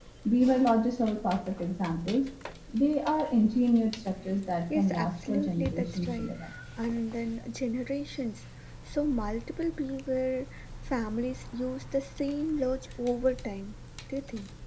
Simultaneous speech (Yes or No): Yes